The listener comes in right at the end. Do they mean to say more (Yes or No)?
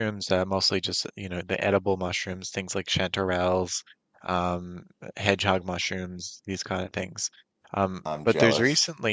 No